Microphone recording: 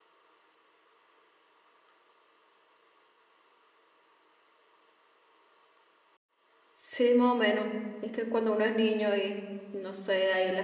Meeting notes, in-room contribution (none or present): present